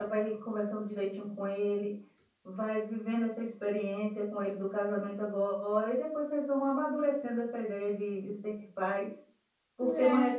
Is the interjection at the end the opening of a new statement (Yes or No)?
No